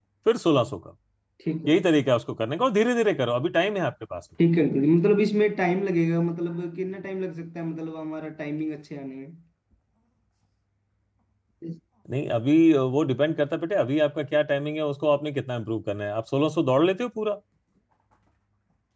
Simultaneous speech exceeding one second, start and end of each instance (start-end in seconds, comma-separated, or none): none